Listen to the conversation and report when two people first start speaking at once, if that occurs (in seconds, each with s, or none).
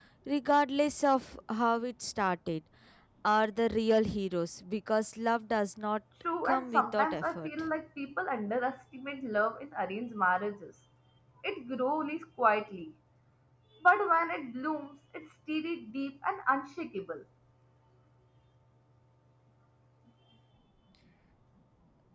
6.4 s